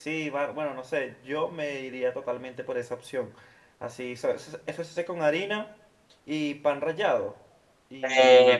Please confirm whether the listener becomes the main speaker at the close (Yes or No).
Yes